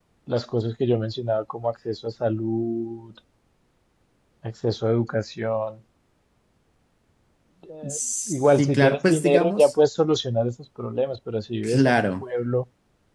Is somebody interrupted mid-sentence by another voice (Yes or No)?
Yes